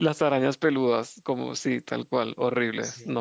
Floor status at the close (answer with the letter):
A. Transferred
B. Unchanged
A